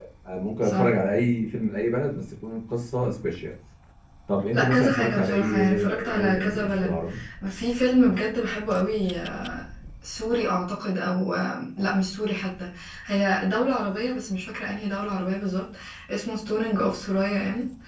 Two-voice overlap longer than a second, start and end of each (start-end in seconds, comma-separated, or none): 4.5-7.0